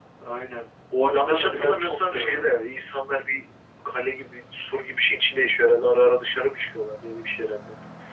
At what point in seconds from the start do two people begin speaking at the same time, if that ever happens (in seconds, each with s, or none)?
1.1 s